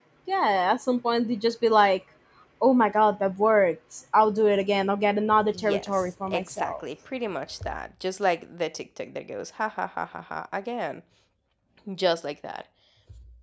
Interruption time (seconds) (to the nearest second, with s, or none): 5 s